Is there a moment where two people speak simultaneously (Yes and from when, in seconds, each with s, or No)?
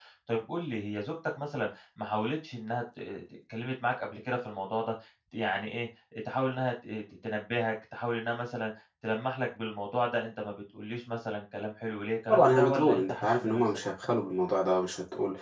Yes, from 12.3 s